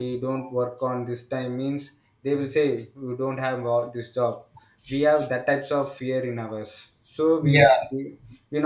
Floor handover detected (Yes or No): No